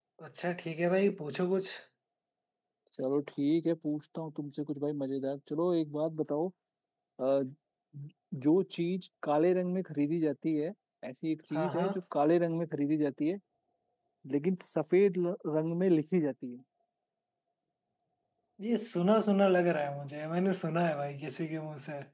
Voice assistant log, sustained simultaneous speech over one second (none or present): none